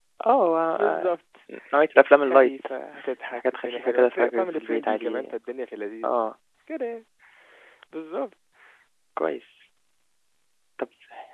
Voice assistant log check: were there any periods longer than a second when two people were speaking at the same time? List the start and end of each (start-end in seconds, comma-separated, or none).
3.4-5.3